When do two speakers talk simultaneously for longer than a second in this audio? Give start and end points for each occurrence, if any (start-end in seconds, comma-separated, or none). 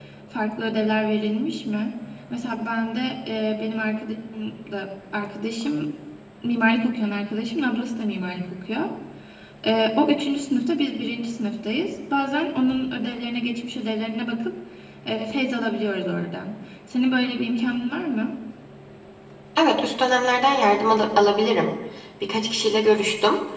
none